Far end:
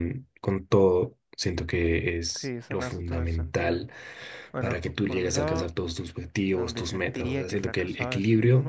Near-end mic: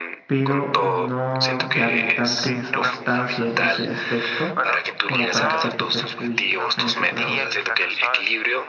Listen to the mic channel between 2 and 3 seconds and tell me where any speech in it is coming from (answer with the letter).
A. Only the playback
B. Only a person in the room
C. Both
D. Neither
C